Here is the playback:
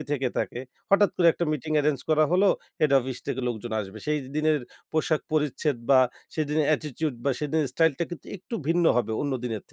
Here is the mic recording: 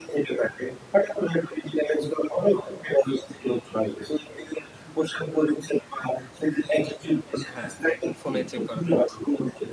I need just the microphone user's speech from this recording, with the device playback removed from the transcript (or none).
হ্যাঁ, এখন ফোনেই চেক করা যাচ্ছে।